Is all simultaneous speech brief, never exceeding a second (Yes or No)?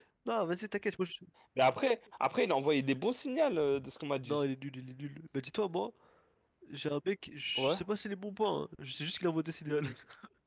Yes